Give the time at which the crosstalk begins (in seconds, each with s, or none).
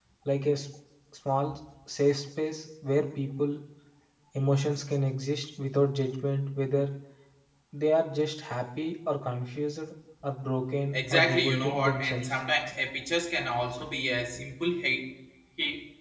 10.9 s